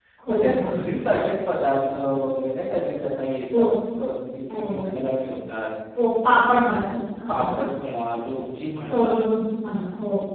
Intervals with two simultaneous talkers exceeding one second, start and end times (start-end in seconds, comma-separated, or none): none